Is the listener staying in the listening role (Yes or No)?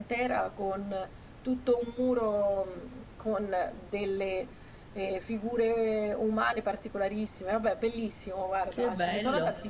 No